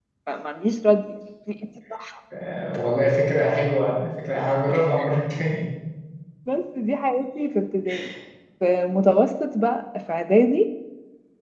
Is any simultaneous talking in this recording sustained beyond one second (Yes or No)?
No